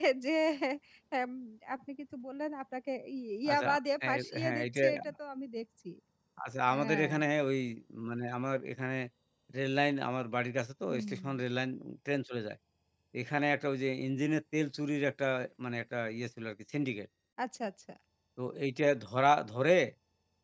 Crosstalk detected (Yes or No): Yes